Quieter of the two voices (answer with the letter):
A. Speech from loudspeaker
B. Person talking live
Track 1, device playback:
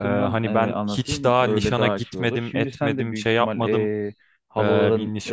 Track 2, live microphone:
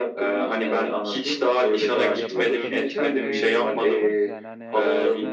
B